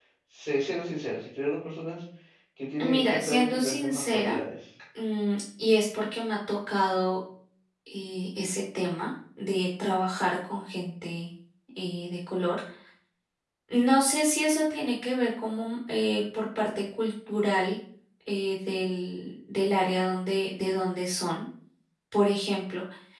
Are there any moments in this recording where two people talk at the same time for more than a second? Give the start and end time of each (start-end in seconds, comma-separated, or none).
2.8-4.4